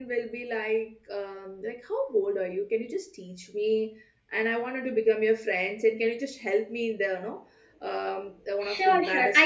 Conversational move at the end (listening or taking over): taking over